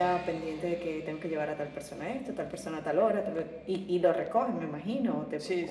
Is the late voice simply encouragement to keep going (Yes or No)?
No